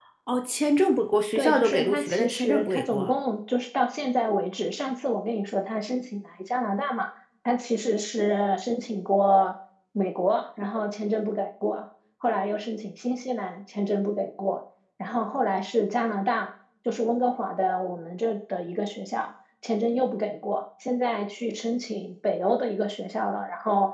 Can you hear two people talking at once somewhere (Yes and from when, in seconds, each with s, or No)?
Yes, from 1.4 s